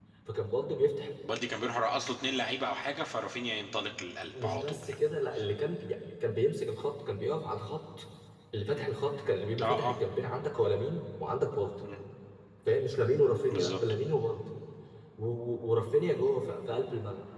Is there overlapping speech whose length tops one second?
No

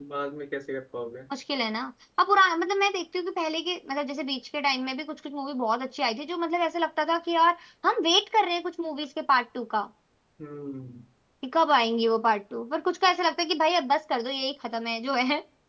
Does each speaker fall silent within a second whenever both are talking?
Yes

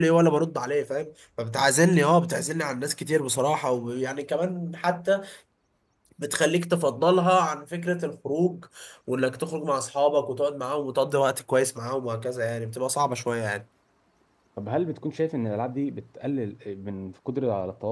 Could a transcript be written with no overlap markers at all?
Yes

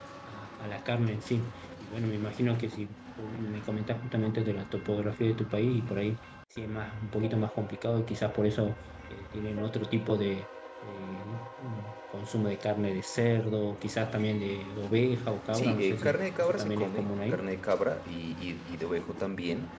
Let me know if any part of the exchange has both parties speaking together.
Yes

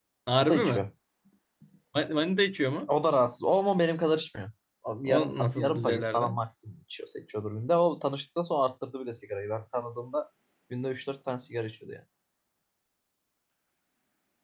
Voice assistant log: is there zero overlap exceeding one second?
No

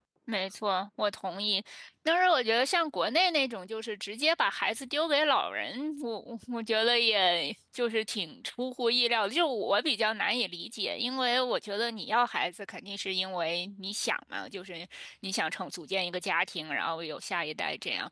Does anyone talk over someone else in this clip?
No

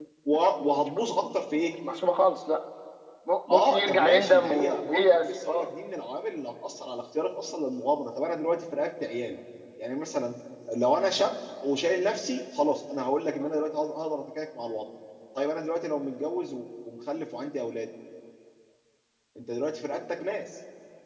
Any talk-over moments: Yes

